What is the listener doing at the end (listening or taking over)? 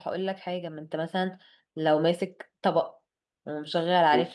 listening